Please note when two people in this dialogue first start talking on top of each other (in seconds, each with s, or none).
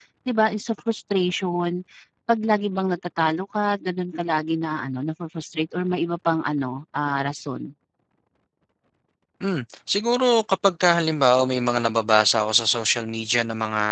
none